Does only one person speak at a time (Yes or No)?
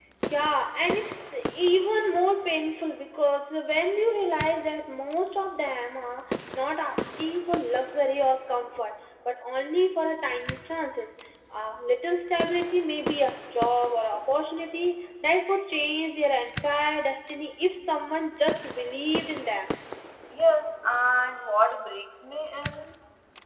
Yes